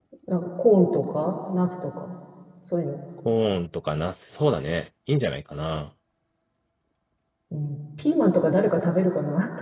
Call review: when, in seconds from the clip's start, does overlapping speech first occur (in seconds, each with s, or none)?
none